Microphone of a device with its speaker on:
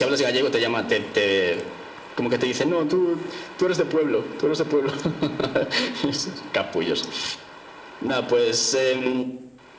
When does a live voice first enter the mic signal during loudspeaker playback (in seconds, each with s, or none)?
none